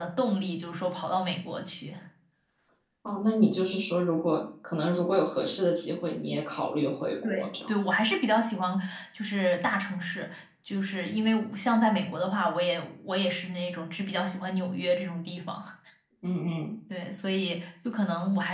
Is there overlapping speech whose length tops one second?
No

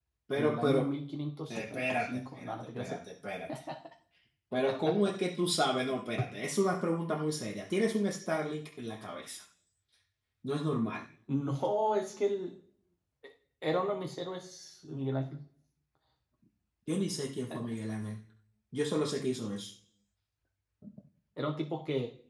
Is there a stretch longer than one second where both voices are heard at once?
Yes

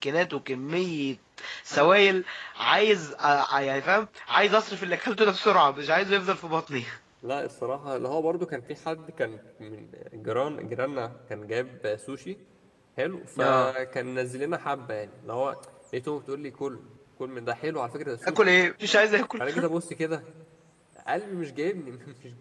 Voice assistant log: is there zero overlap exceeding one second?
Yes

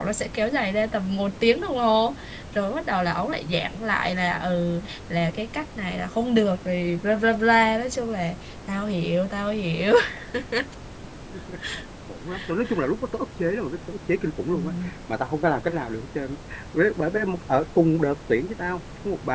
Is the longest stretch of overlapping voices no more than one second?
Yes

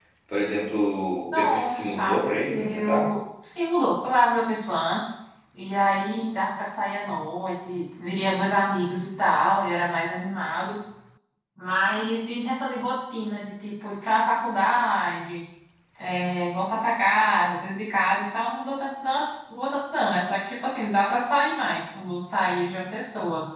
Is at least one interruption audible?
Yes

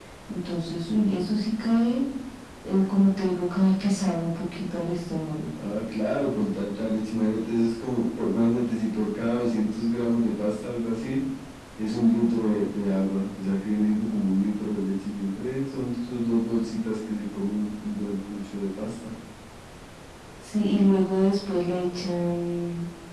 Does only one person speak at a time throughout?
Yes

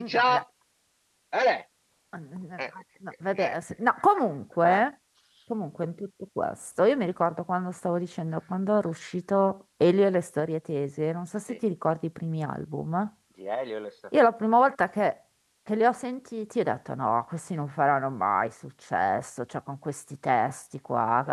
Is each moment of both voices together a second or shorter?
Yes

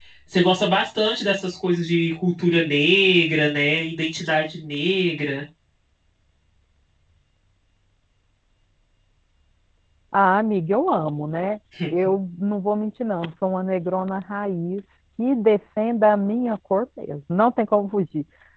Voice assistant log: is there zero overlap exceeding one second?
Yes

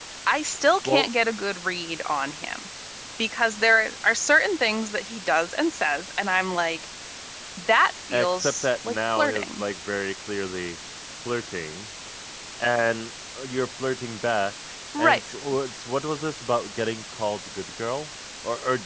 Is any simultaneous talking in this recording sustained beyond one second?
Yes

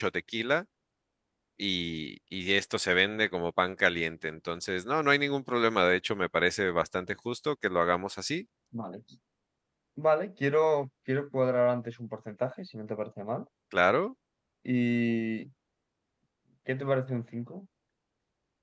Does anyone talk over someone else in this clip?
No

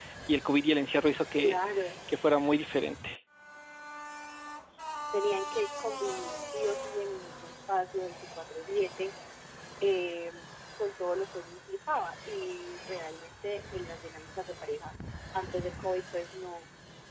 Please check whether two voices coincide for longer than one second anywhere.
No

